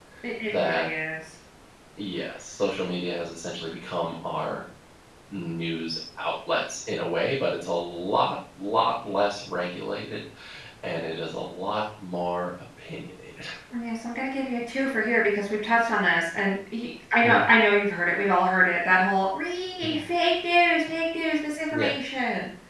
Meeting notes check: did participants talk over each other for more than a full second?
No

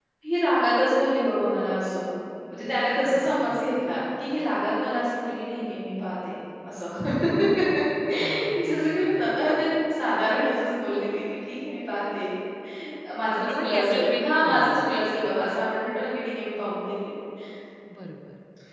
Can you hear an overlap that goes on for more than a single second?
Yes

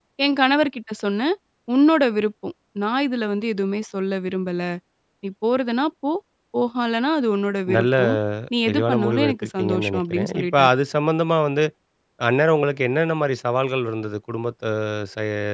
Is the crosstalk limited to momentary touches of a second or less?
No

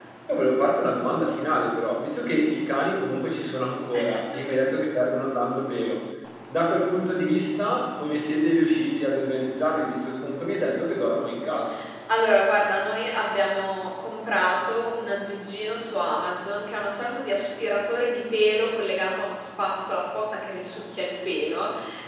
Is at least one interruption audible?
No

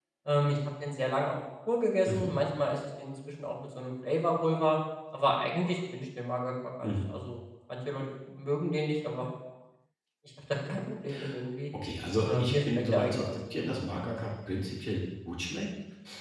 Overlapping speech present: Yes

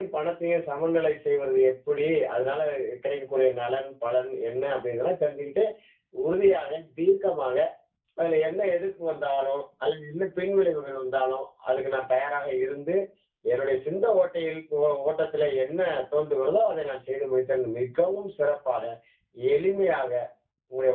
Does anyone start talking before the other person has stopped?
No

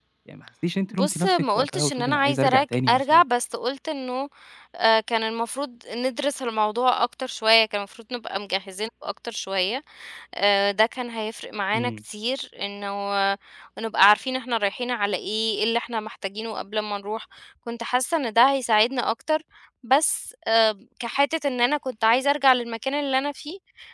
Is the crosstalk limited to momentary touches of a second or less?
No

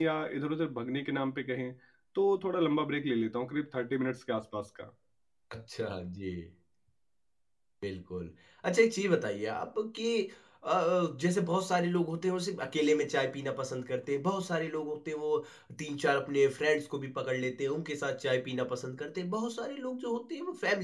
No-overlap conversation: Yes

